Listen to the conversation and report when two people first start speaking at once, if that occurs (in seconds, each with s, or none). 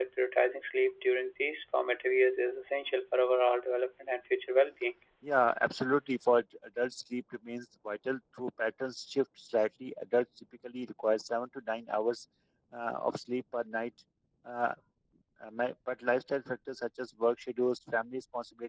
none